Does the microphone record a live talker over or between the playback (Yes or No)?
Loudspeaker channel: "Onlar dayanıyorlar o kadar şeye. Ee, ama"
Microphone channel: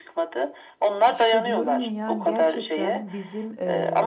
Yes